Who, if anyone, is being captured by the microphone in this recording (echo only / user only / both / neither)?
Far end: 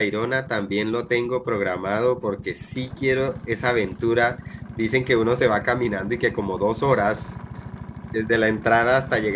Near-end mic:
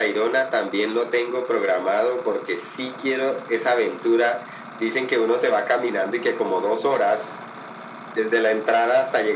echo only